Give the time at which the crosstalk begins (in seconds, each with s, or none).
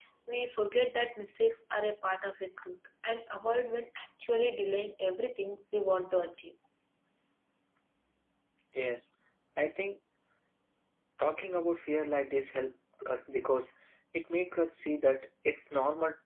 none